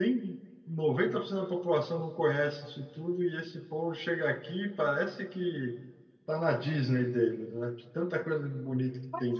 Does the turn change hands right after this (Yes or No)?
Yes